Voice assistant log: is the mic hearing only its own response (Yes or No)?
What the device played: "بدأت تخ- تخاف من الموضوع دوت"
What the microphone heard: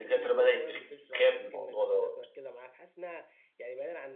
No